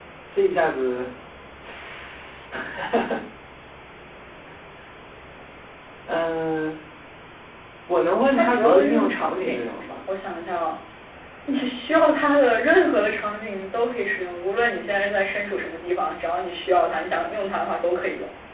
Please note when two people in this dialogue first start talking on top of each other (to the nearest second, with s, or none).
8 s